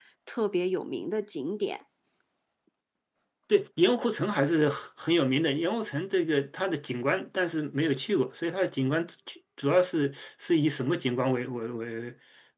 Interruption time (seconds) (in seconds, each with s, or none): none